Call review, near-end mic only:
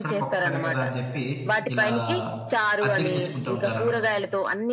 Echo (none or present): present